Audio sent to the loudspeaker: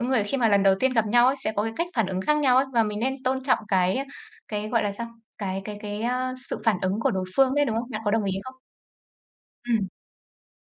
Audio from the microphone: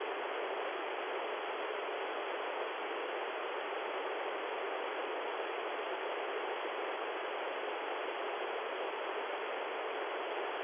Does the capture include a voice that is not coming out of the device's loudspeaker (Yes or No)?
No